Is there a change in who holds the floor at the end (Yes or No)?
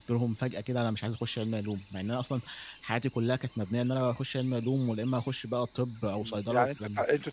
Yes